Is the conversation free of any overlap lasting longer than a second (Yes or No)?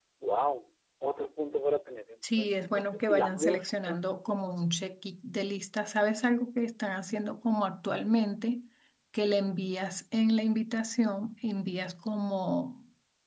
No